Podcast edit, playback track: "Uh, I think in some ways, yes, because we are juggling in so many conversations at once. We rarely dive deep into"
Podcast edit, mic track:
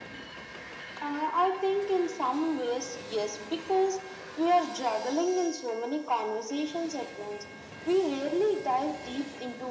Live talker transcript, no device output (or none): none